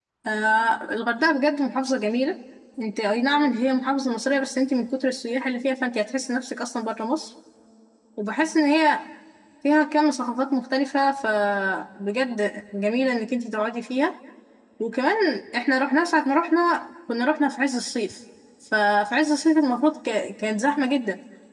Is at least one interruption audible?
No

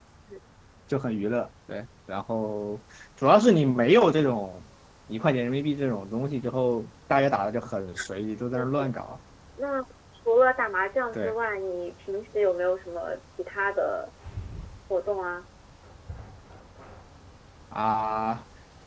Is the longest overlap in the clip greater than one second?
No

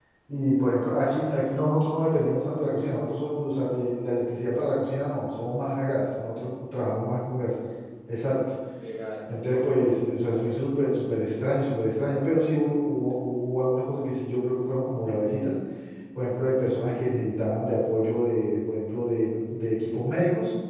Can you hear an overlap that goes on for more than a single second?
No

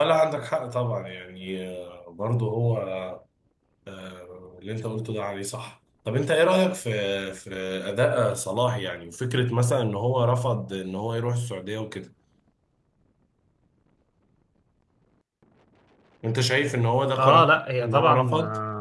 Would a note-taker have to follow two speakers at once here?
Yes, from 17.2 s

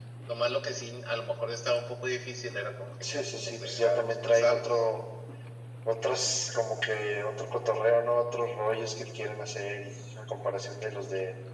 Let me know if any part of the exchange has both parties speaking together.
Yes, from 3.0 s

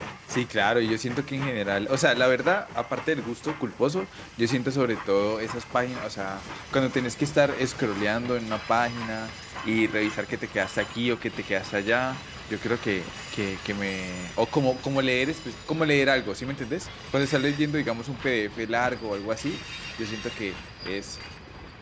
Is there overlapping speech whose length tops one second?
No

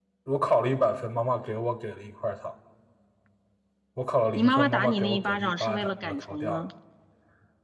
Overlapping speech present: Yes, from 4.3 s

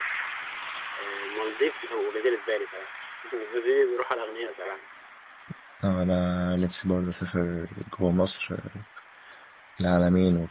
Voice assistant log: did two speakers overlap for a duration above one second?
No

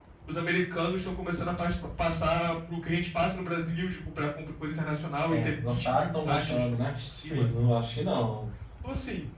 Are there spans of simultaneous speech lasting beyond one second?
Yes, from 5.3 s

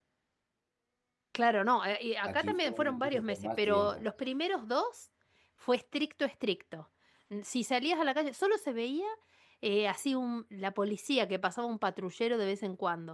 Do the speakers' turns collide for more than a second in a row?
Yes, from 2.2 s

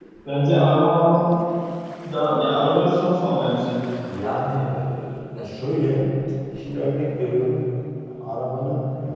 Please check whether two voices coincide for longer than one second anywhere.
No

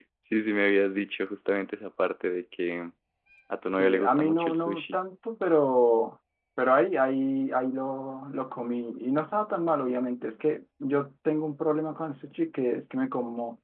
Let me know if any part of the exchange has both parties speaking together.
Yes, from 3.7 s

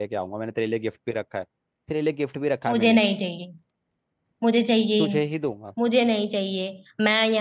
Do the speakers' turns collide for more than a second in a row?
No

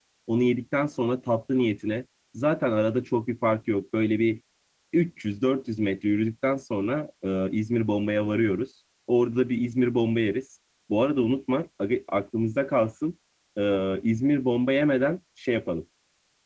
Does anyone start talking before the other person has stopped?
No

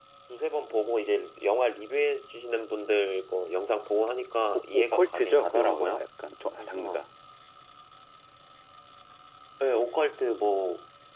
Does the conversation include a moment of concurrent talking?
Yes, from 4.7 s

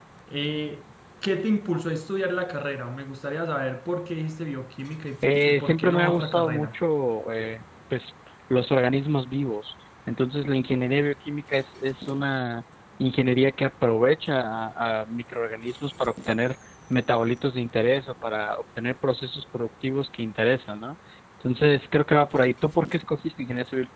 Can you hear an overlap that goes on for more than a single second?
Yes, from 5.2 s

